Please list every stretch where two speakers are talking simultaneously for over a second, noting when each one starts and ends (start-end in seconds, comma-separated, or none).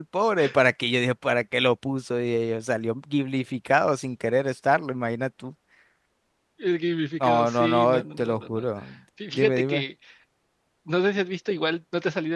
7.2-8.6